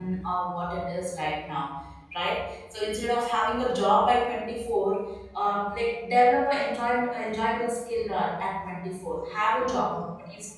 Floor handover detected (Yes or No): No